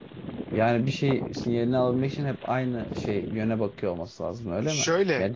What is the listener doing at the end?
taking over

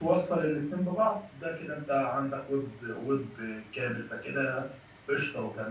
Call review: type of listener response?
taking over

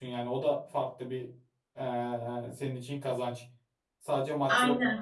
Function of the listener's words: taking over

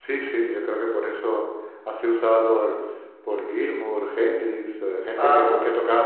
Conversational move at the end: listening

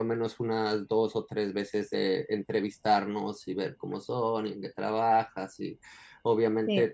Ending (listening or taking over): listening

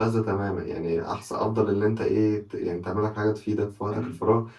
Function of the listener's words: listening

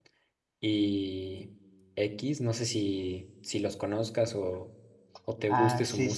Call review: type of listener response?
taking over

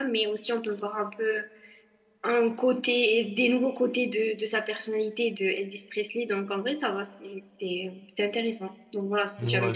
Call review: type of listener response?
taking over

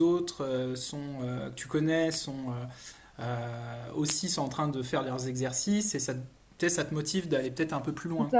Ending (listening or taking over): taking over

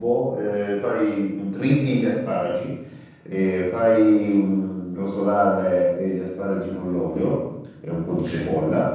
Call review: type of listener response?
listening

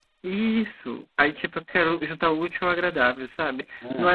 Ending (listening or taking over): listening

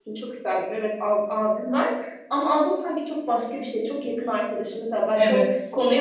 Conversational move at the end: listening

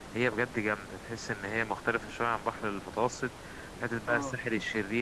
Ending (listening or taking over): listening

